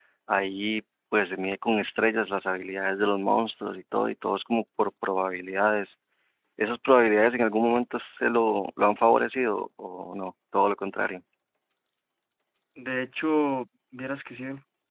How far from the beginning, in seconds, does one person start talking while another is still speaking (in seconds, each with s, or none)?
none